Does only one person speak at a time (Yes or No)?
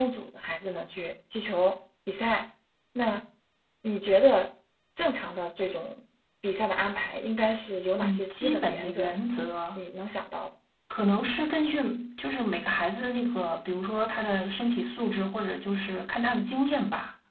No